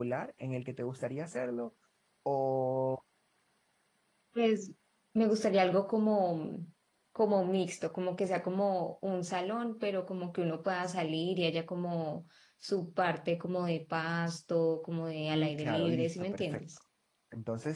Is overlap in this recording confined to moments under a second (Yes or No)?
No